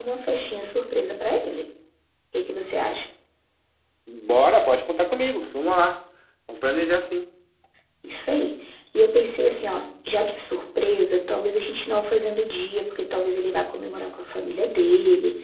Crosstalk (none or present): none